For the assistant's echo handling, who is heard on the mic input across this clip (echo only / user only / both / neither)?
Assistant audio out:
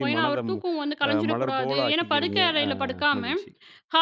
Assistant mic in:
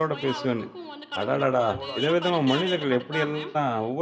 both